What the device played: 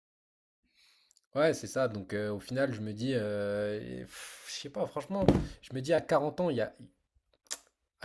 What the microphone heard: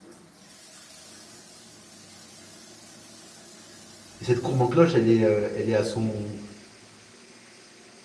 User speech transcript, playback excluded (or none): Et cette courbe en cloche, elle est, euh, elle est à, son,